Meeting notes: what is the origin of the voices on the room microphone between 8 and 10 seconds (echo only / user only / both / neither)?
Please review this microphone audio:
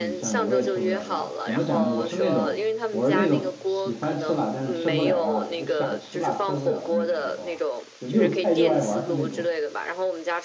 both